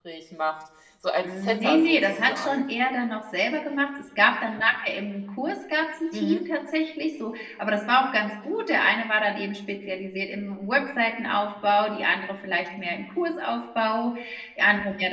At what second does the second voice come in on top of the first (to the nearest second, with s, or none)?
1 s